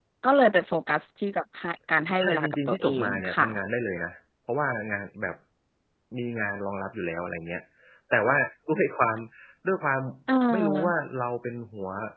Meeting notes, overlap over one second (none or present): present